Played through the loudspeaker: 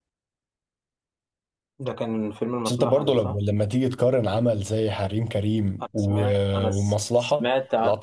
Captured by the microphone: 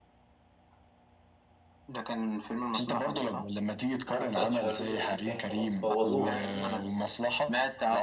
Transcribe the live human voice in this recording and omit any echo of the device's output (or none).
انا ما اتفرجتش على الجزء القديم تاني خلاص بوظوها فاهمني